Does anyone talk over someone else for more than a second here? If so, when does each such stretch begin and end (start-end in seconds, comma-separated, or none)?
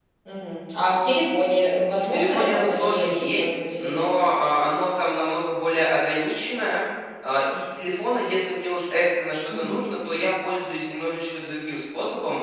2.0-4.1